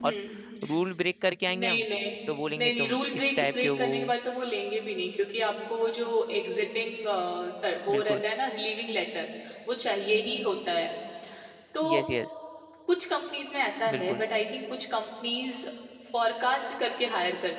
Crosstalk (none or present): present